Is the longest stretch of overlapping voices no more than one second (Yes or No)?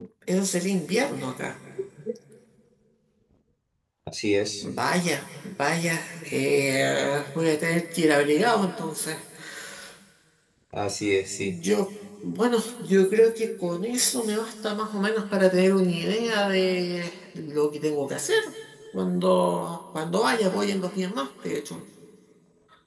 Yes